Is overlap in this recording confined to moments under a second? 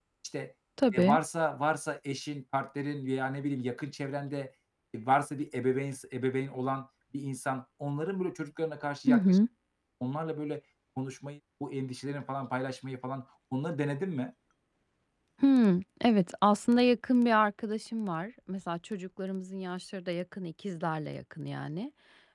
Yes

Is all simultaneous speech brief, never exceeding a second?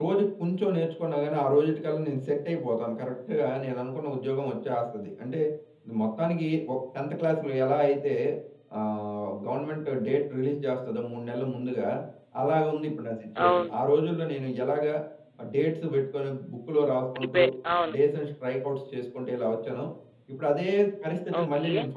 Yes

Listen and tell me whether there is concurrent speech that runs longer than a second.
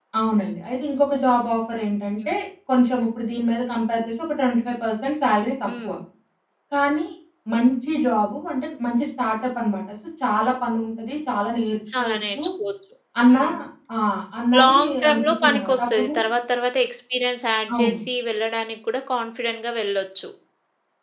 Yes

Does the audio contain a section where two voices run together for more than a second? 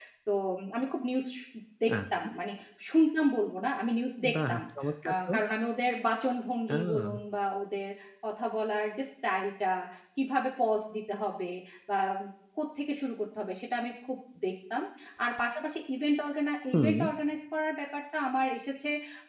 No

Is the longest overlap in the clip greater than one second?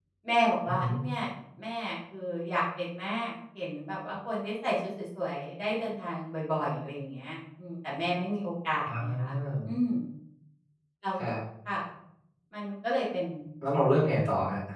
No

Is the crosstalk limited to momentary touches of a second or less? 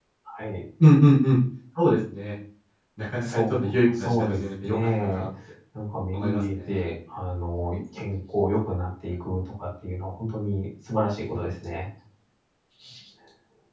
No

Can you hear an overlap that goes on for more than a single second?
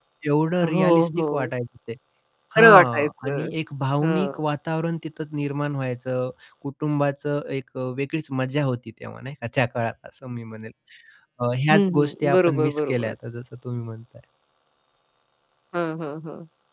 Yes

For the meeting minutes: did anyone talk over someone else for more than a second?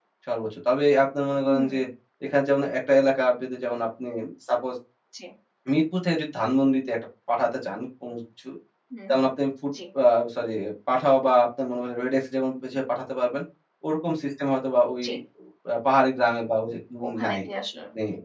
No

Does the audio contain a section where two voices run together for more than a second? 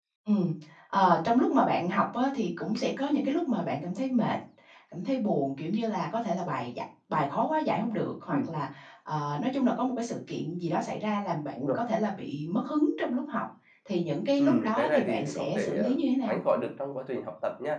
Yes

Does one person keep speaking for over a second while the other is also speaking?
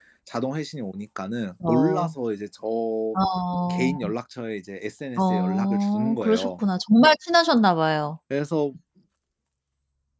Yes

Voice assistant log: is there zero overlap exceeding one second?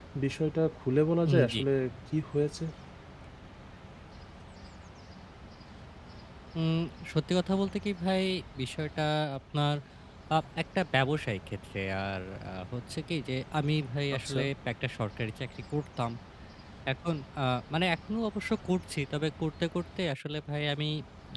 Yes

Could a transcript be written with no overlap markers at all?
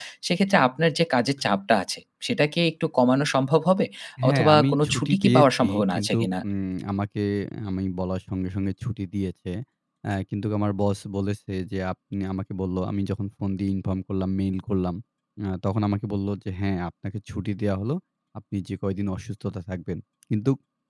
No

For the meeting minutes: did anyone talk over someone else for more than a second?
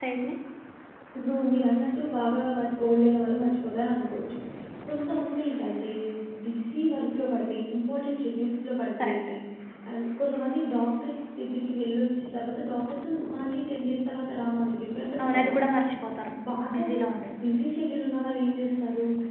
No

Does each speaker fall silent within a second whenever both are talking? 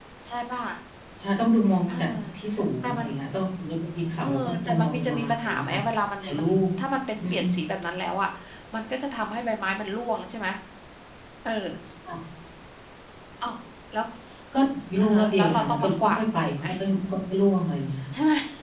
No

